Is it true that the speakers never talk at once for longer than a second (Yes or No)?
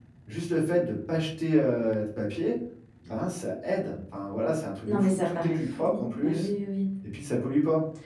No